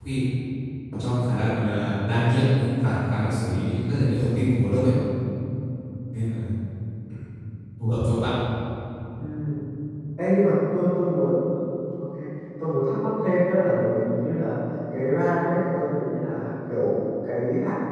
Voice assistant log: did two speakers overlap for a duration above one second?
No

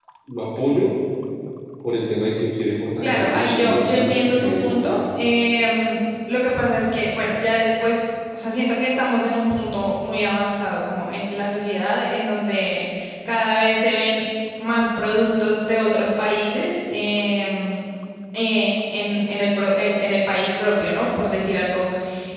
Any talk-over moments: Yes, from 3.0 s

